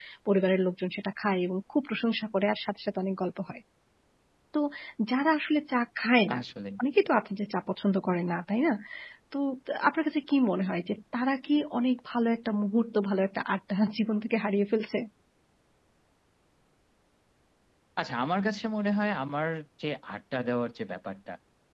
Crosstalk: none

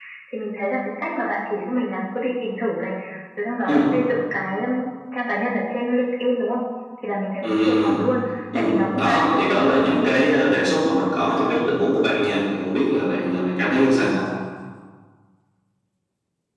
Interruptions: present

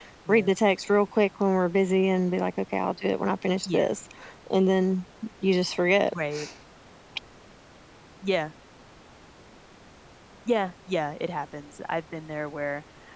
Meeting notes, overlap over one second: none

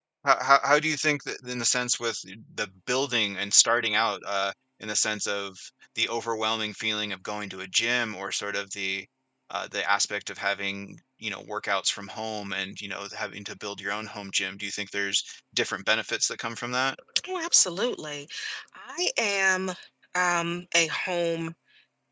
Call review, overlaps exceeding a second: none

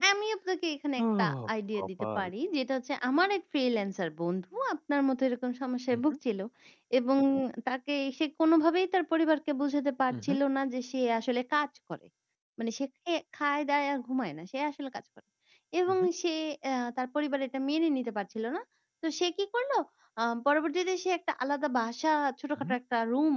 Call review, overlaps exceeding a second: present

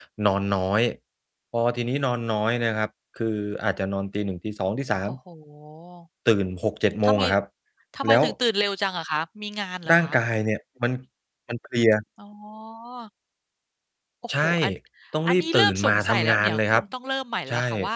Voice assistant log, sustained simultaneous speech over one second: present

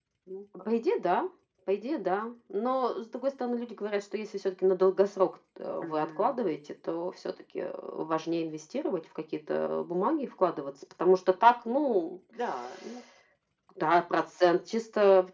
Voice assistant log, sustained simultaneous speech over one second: none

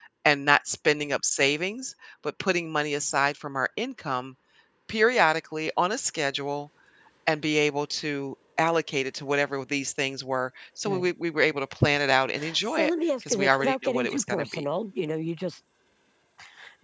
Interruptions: present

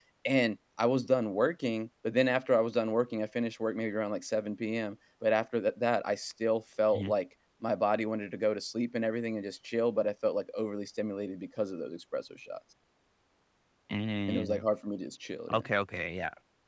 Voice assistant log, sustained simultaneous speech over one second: none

